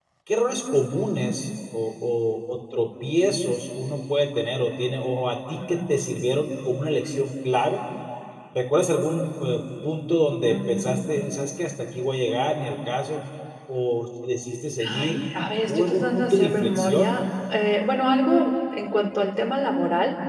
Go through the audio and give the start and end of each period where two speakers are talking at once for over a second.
15.7-17.1

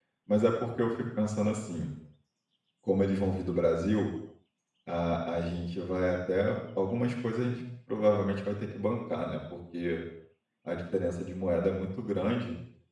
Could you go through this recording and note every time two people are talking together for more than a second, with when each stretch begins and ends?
none

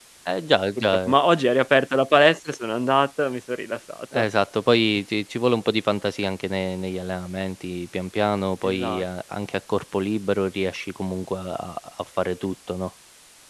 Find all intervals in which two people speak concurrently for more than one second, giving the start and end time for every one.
none

